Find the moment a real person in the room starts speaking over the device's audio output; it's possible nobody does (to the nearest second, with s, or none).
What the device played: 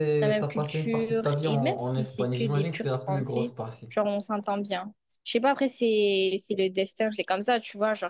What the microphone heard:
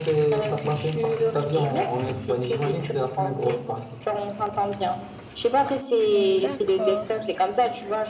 6 s